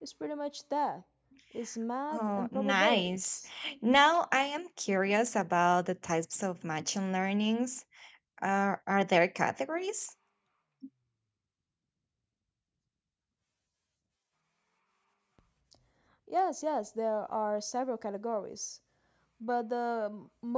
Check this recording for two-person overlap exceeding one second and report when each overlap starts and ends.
2.1-3.4

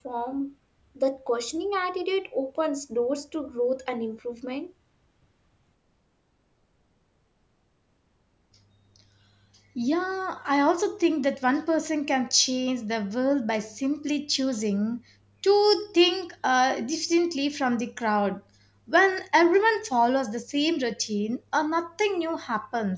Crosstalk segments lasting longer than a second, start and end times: none

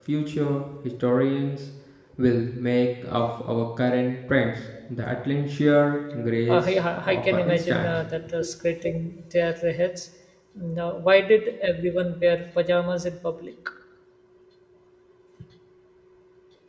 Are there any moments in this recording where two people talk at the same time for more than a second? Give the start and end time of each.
6.5-7.9

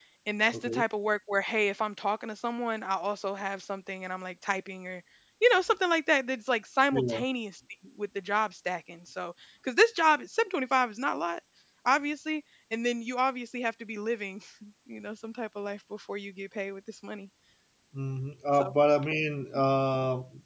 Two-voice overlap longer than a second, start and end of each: none

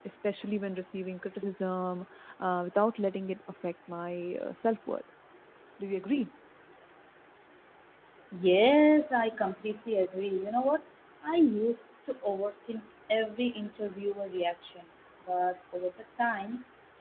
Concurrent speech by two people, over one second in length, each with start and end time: none

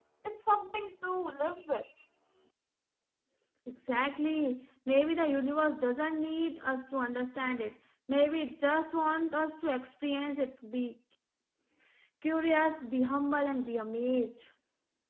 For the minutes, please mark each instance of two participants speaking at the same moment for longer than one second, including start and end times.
none

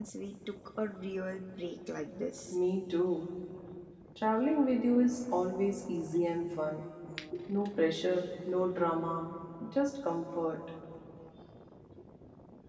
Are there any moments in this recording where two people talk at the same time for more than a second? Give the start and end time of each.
none

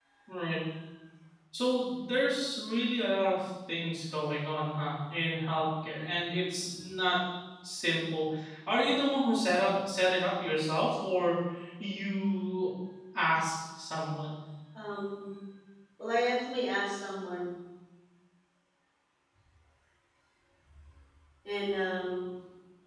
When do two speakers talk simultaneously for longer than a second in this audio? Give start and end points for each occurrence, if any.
none

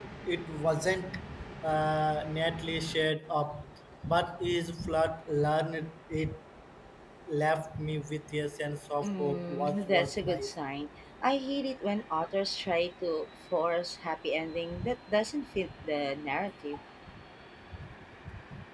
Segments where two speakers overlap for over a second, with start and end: 9.0-10.5

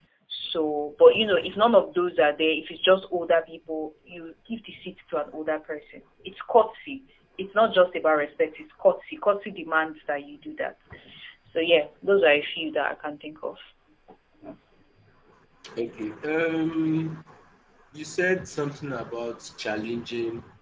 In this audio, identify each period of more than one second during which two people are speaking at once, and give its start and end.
none

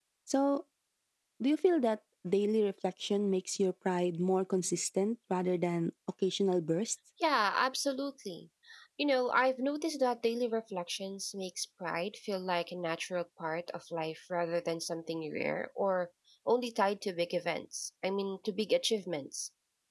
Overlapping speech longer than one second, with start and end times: none

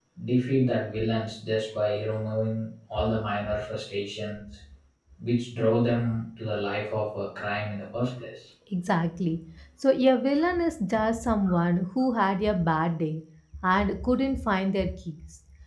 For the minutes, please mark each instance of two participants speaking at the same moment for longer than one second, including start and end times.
none

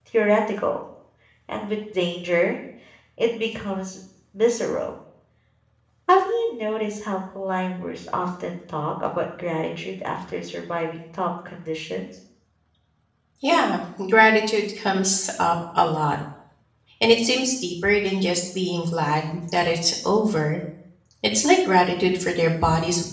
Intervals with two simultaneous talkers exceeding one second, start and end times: none

